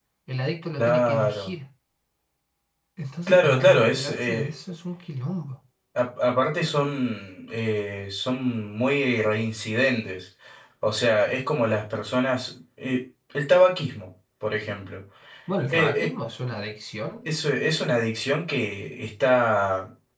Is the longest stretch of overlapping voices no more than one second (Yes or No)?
No